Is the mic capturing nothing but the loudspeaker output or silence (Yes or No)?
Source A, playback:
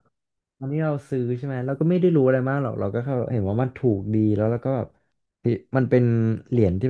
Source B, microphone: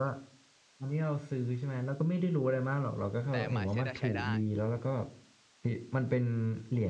No